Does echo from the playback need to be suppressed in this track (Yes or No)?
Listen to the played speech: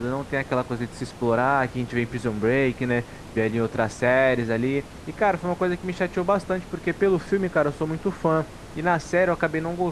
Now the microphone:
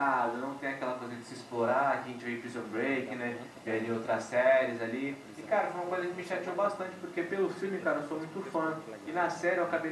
Yes